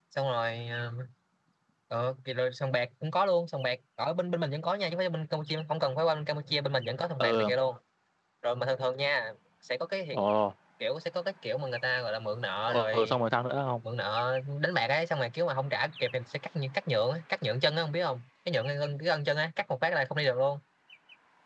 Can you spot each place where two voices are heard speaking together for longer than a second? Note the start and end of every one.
none

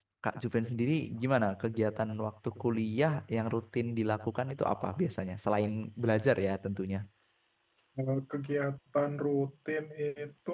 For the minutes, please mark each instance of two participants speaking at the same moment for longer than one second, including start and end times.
none

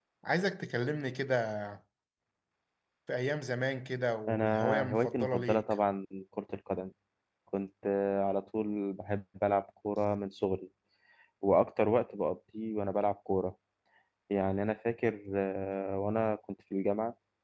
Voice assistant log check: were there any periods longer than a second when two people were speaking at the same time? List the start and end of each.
4.3-5.6

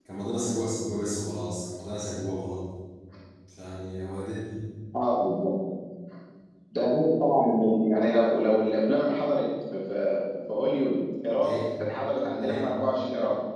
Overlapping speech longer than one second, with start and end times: none

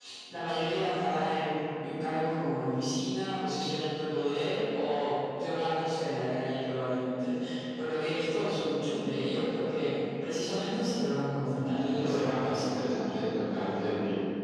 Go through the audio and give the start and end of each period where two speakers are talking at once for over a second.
11.5-12.7

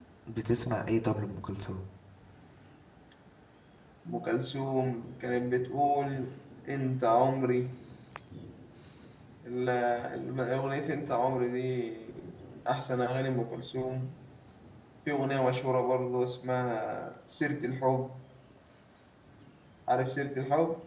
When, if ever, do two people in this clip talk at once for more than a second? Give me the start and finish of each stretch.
none

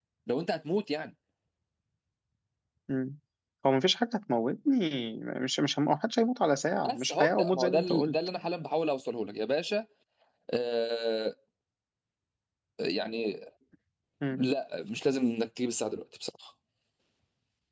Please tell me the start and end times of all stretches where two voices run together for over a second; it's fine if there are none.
6.9-8.2

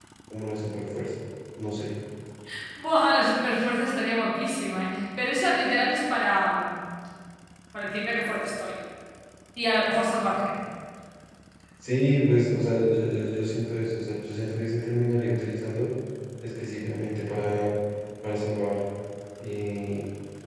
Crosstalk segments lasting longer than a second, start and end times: none

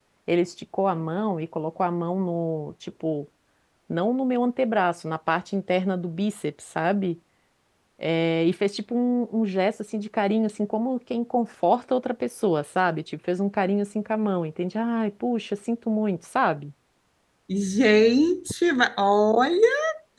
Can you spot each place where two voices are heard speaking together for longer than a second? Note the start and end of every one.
none

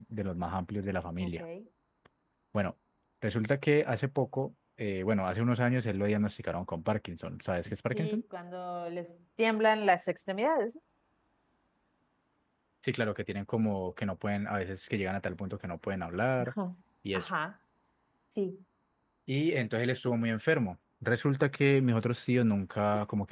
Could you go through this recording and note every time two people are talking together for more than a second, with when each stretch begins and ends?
none

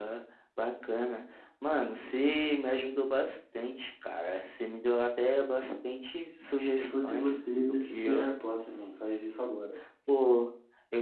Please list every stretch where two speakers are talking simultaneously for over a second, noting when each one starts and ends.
6.8-8.1

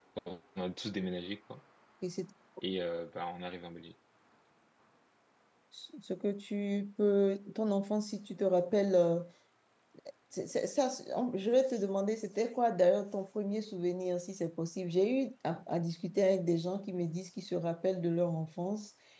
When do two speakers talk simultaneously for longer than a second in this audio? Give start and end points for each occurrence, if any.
none

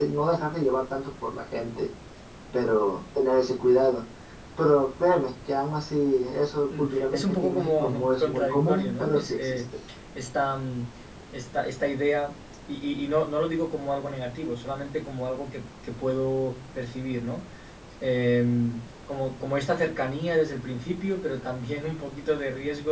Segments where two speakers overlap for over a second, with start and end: 6.8-9.6

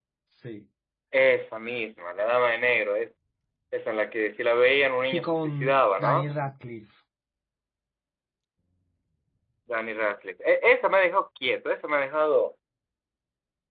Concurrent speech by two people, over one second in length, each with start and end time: 5.0-6.3

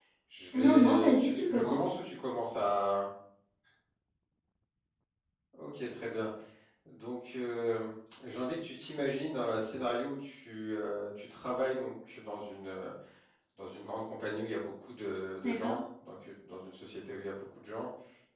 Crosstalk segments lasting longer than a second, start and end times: 0.5-1.9

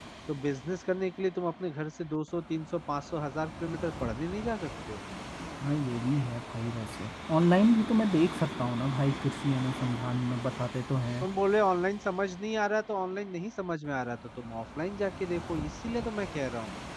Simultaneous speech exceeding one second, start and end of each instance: none

